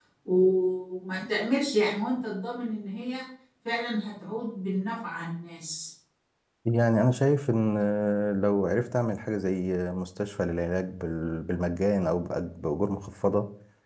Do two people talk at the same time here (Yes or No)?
No